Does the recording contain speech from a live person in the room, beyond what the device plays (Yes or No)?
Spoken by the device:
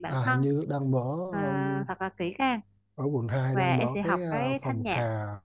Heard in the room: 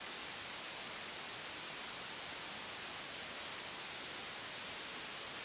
No